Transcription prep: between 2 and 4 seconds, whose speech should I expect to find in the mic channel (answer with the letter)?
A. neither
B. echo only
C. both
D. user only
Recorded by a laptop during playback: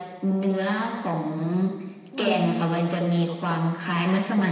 C